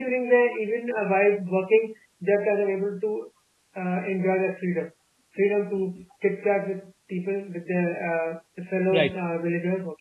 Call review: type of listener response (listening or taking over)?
listening